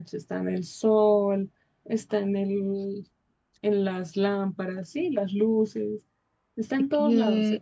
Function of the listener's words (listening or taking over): taking over